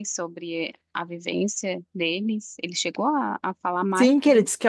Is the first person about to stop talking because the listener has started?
Yes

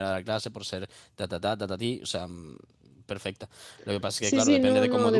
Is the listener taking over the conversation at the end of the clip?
Yes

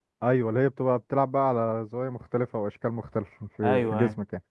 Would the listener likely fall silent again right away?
No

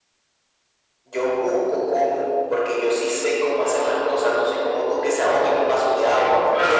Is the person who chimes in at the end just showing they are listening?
No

